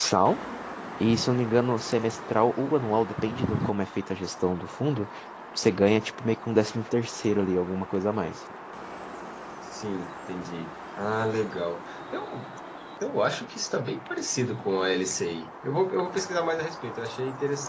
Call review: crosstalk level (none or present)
none